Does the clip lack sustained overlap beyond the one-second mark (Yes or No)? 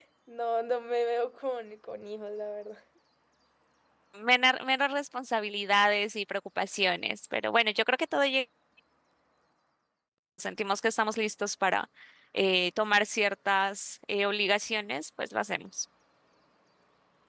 Yes